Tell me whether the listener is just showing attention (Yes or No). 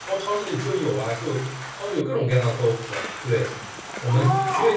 Yes